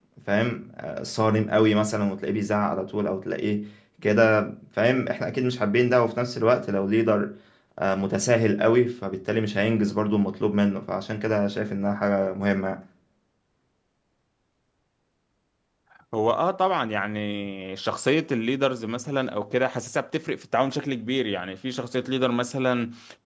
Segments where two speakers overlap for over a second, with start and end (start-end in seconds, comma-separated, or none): none